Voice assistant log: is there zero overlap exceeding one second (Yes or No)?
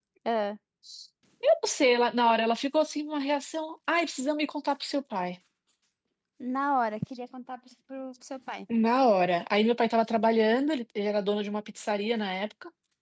Yes